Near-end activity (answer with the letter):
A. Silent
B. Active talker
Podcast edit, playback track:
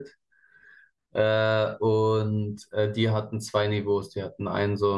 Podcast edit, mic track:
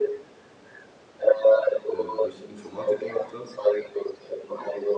B